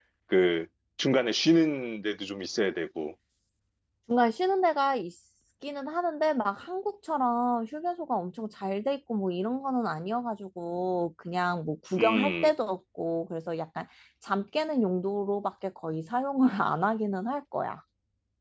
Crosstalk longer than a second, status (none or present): none